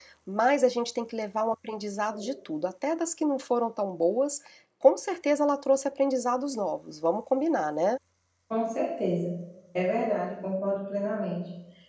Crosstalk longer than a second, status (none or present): none